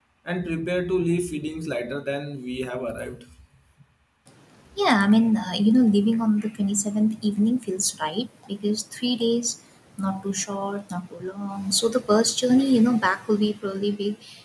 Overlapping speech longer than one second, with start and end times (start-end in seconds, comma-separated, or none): none